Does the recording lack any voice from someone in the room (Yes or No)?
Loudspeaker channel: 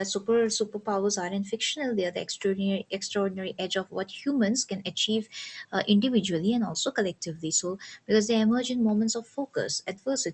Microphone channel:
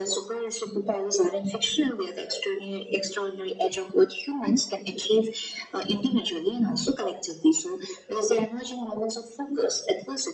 Yes